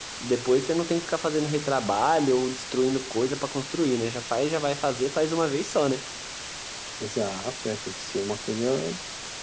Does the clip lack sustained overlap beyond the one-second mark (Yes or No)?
Yes